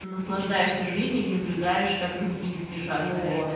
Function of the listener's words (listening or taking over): taking over